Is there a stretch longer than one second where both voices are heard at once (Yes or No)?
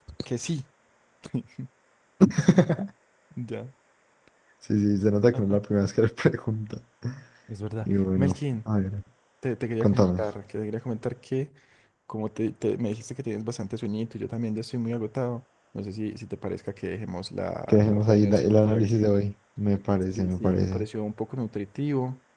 Yes